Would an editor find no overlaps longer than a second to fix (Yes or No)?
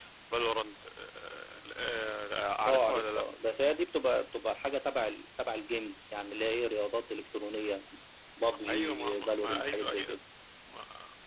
No